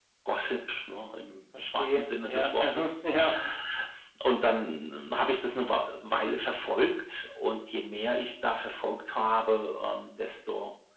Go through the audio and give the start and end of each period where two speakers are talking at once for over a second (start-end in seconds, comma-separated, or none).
1.5-2.9